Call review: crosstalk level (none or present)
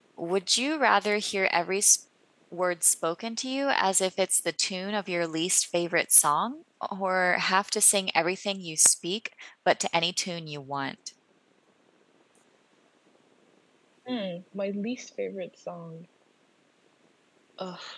none